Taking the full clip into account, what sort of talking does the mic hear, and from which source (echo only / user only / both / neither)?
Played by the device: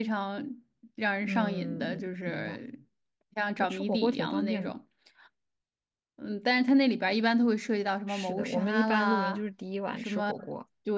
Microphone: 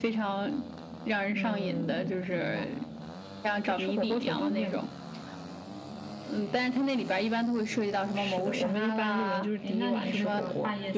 both